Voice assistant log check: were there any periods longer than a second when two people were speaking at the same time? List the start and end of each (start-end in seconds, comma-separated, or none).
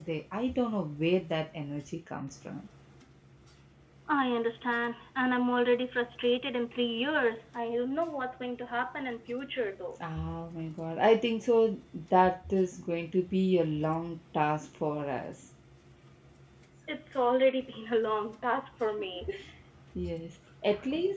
none